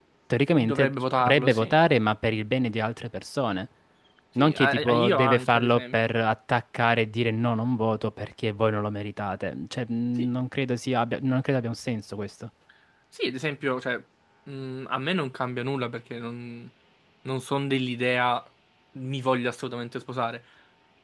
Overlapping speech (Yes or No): Yes